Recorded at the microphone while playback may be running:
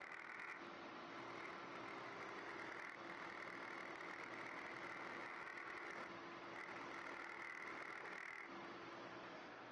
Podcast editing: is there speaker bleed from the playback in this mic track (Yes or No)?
No